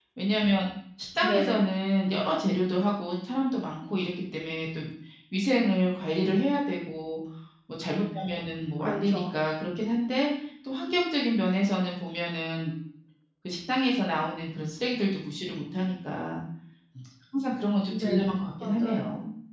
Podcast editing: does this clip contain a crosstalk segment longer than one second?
Yes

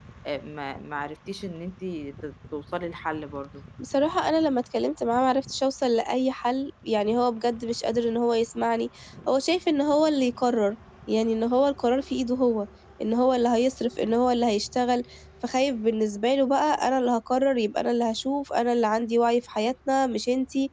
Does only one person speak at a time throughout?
Yes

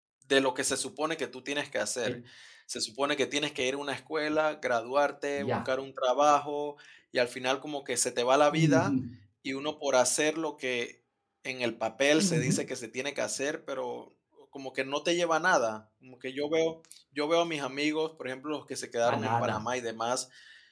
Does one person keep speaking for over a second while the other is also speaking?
No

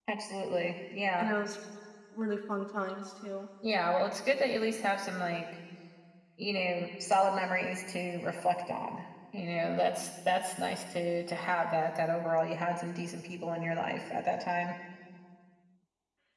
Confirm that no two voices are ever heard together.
Yes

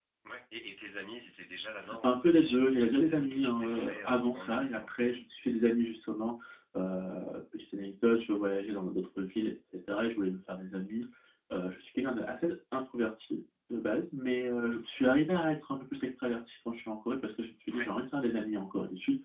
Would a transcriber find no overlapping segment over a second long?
No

